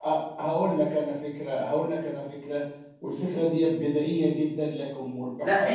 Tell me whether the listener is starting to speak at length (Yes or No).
Yes